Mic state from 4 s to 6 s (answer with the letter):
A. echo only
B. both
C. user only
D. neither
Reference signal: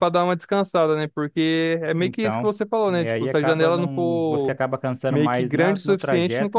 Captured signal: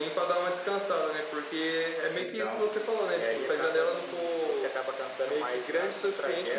A